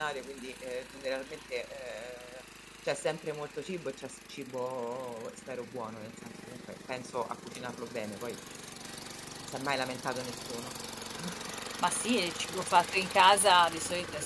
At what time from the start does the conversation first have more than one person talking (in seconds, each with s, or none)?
none